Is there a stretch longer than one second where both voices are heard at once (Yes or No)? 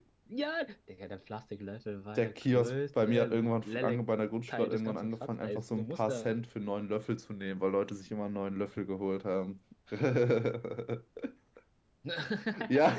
Yes